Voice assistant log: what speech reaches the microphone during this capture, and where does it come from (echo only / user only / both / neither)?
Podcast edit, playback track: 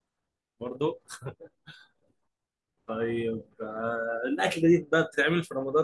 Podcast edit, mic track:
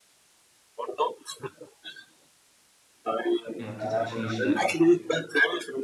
both